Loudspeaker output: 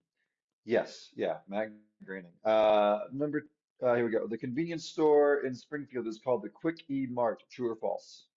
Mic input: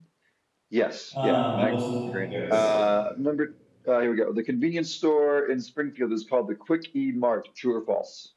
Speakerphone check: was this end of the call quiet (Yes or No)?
No